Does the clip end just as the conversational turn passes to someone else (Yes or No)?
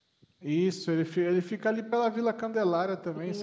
Yes